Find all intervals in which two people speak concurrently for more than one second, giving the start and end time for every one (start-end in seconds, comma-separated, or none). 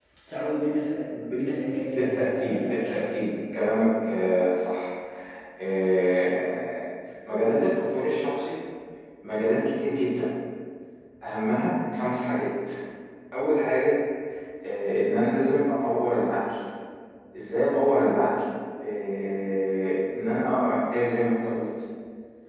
1.9-3.1